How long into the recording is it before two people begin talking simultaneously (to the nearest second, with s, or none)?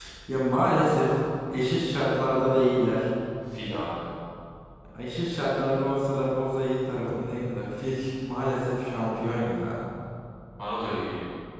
none